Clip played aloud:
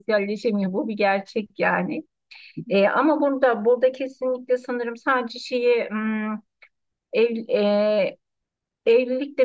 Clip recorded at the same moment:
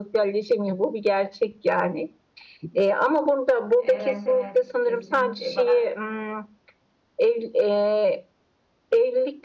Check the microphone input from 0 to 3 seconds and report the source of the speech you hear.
echo only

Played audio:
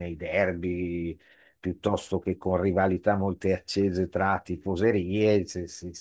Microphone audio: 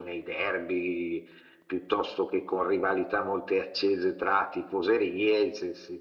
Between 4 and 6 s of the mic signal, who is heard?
echo only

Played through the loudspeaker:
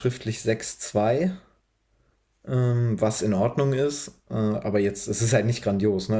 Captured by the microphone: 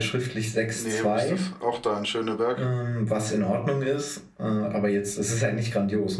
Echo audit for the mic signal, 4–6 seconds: echo only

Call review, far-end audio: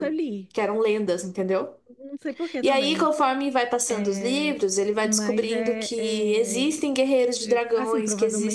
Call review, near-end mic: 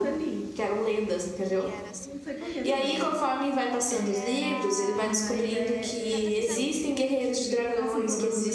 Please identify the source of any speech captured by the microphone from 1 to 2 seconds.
both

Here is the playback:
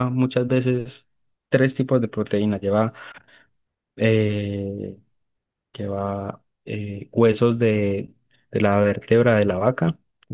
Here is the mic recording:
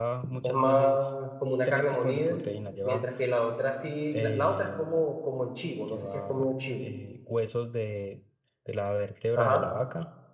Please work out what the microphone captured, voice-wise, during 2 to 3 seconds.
both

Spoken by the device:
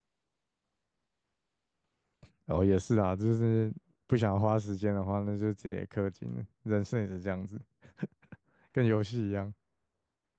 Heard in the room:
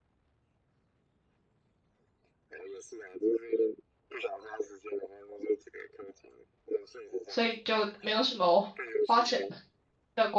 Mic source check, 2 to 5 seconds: echo only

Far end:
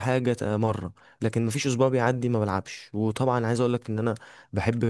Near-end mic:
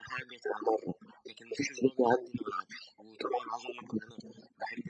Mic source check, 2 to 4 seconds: echo only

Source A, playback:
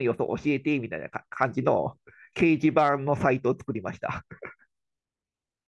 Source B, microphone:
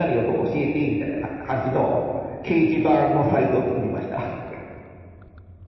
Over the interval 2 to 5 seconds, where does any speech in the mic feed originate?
echo only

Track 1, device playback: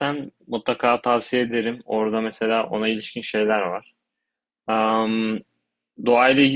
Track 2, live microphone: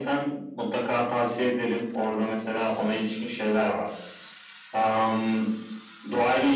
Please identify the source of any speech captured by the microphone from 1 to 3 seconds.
echo only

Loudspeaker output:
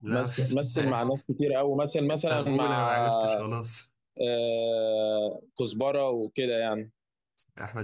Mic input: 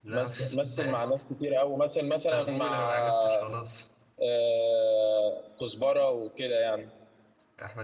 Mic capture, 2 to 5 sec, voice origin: echo only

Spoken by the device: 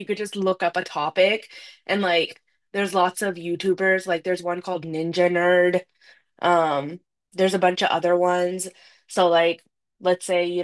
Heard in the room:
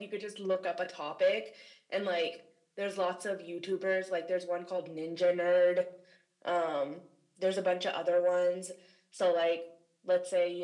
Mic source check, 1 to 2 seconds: echo only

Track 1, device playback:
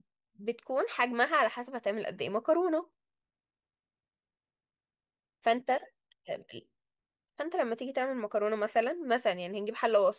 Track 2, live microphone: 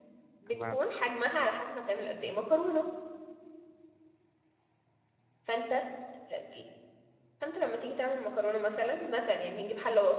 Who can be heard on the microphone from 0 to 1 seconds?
both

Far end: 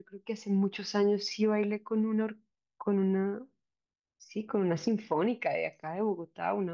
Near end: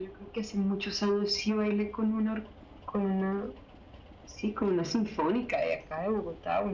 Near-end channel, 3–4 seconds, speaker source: echo only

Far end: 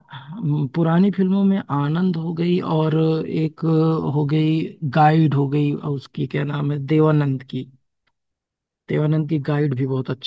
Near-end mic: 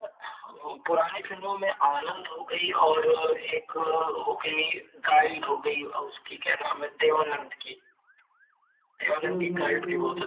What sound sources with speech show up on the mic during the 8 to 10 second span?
both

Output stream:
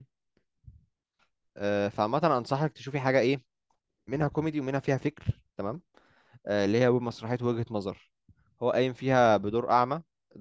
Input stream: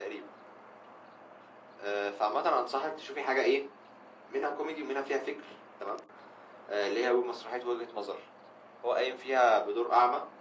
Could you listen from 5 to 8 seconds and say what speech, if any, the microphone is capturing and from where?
echo only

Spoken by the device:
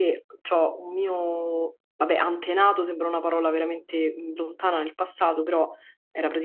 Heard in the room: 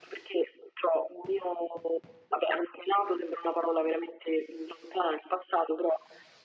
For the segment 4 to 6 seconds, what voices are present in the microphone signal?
echo only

